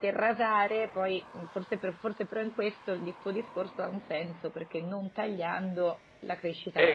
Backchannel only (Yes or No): No